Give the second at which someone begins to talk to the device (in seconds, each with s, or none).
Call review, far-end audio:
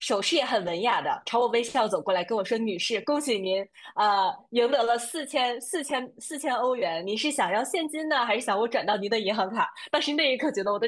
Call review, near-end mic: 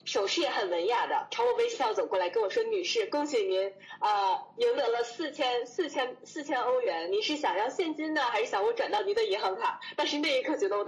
none